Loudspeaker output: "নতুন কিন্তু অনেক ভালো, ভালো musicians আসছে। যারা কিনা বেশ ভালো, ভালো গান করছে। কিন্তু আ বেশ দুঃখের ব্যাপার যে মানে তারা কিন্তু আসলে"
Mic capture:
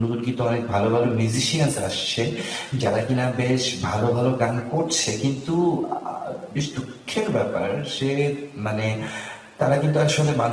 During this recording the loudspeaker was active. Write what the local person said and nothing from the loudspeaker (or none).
none